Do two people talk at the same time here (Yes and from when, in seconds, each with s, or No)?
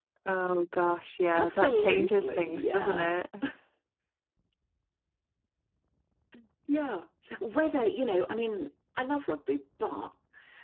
Yes, from 1.3 s